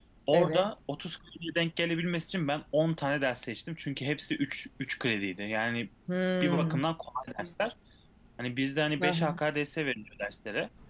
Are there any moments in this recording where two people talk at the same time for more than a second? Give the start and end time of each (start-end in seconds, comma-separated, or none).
none